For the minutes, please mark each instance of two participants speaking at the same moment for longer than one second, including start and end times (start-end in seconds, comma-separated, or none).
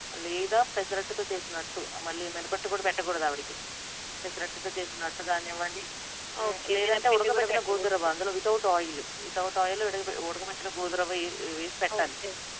6.5-7.9